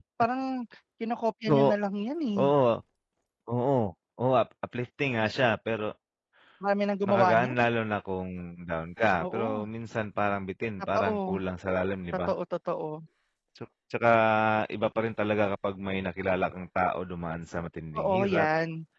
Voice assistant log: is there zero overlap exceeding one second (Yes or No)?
Yes